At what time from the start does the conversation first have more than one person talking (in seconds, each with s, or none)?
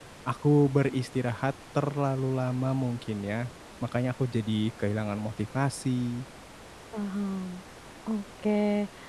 none